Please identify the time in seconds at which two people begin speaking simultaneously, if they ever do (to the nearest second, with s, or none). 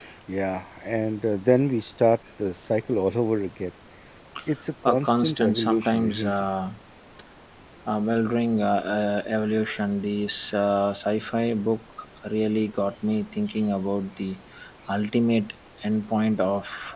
5 s